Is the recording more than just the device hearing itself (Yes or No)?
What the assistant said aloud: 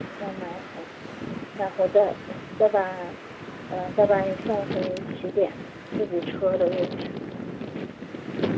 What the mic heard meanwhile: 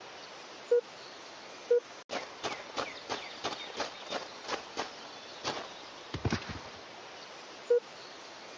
No